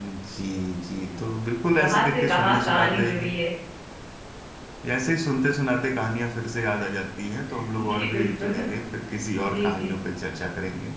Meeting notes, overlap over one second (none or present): present